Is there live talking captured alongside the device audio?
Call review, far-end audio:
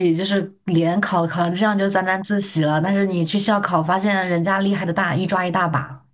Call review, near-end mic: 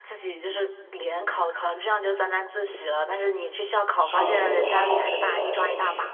Yes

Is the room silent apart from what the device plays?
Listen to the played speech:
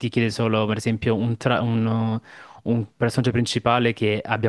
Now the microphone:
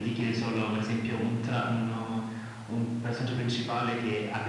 Yes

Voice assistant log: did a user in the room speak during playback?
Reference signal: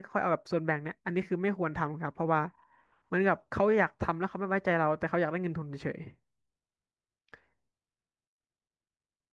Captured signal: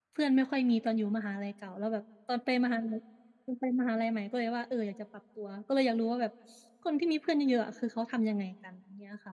Yes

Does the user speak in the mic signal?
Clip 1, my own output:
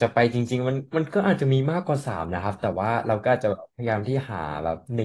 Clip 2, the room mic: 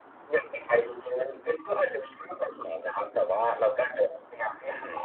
No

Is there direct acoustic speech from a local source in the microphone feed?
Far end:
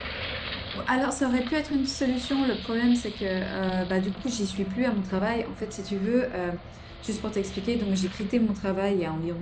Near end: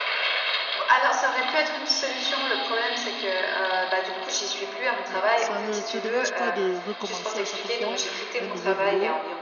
Yes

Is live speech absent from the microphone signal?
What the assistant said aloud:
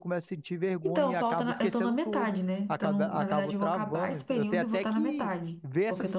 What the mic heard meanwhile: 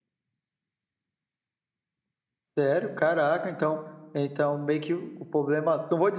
No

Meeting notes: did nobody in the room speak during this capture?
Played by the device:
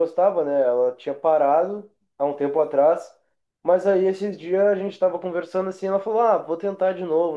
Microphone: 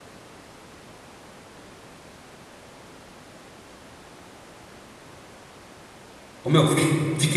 No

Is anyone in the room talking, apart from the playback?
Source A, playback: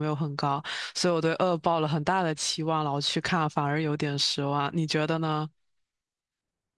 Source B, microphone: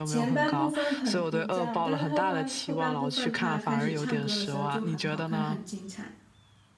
Yes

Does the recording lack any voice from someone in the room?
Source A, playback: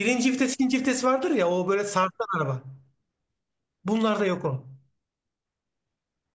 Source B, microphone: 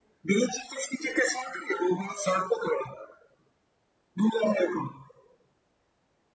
Yes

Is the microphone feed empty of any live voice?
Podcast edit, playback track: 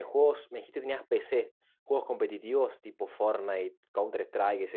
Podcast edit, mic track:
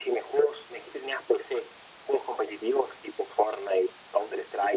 Yes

